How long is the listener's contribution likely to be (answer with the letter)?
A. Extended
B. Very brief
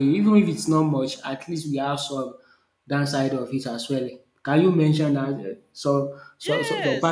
A